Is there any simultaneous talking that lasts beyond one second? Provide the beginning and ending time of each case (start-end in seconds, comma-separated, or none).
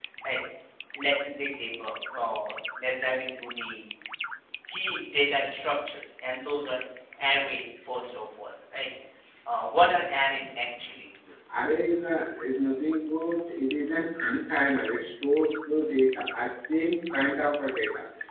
none